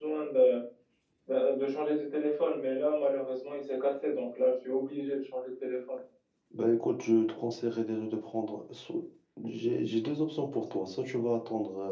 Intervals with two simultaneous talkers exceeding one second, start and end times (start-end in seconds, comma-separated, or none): none